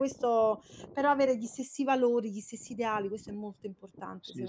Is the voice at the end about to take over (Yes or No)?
Yes